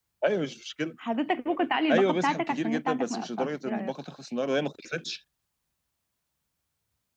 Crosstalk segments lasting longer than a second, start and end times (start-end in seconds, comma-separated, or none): 1.9-3.9